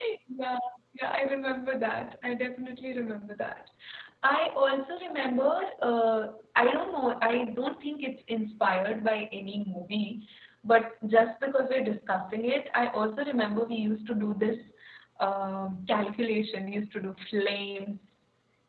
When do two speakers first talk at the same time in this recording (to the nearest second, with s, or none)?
none